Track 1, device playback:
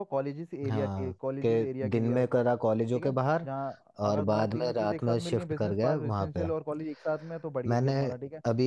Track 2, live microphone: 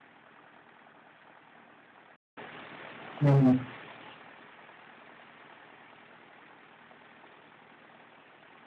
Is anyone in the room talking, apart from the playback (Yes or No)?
Yes